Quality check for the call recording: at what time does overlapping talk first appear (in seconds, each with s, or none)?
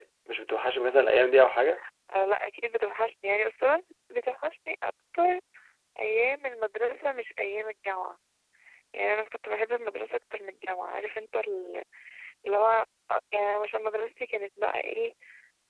none